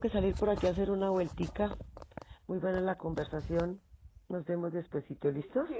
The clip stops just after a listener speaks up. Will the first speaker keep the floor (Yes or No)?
No